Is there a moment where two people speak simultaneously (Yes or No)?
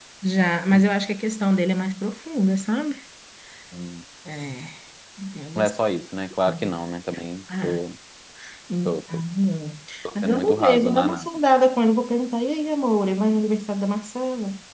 Yes